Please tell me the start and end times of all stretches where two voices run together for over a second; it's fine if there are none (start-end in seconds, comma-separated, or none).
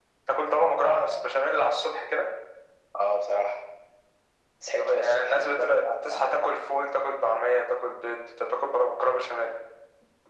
4.8-6.4